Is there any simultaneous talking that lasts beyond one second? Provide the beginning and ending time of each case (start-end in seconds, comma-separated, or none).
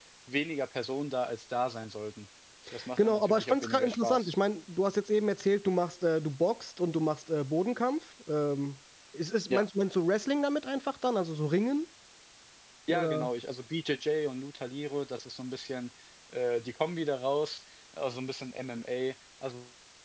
3.0-4.3